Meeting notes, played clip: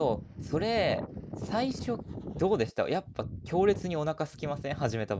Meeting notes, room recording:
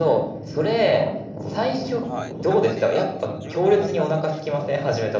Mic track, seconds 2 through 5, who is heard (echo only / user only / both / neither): both